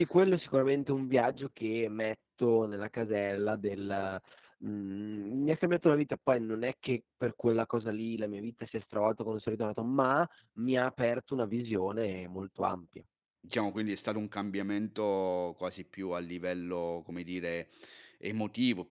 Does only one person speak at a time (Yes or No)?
Yes